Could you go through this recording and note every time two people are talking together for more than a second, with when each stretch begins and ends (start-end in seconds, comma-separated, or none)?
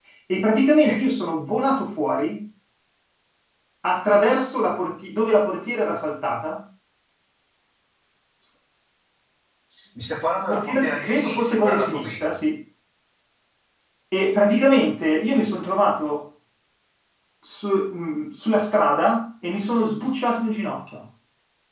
10.5-12.4